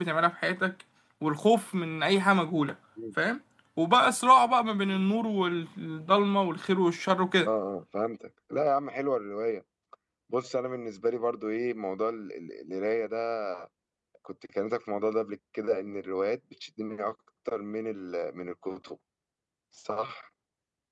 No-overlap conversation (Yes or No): Yes